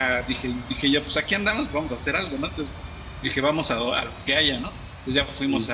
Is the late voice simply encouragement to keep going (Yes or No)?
Yes